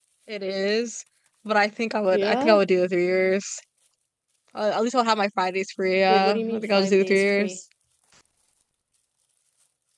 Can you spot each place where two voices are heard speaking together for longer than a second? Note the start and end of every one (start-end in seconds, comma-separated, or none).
6.1-7.6